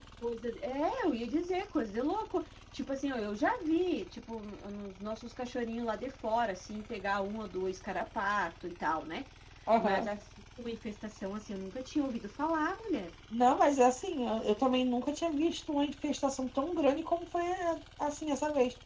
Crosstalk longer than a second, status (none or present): none